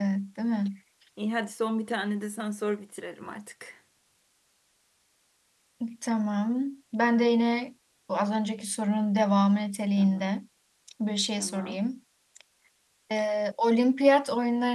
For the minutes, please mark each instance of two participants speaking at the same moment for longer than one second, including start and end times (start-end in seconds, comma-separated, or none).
none